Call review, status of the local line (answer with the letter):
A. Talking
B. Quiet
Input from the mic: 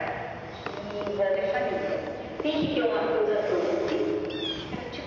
B